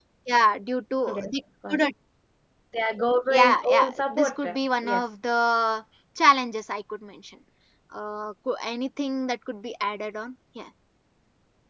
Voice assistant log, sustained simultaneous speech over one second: present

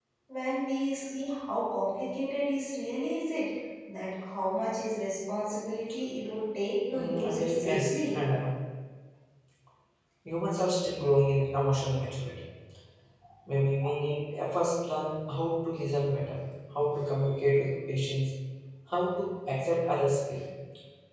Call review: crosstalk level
present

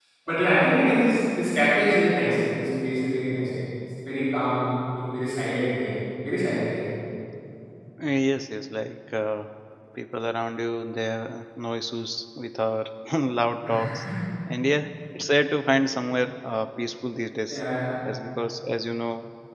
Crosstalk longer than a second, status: none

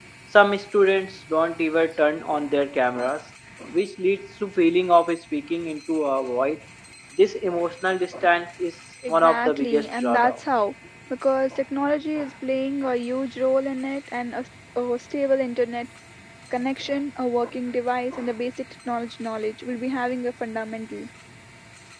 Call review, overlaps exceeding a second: present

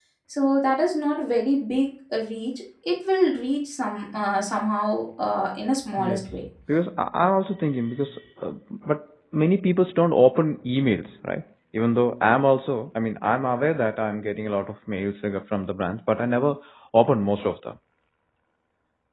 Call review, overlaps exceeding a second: none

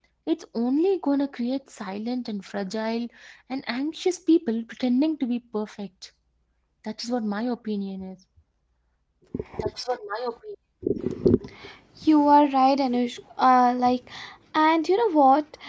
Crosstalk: none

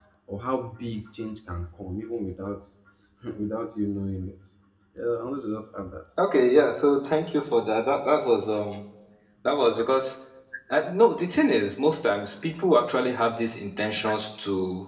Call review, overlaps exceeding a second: none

